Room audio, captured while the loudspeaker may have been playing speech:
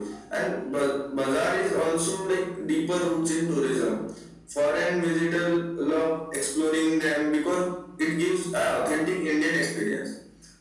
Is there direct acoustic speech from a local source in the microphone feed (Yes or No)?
No